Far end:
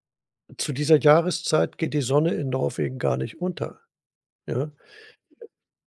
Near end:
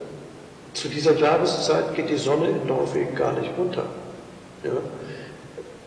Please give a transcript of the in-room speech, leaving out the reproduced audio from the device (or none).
none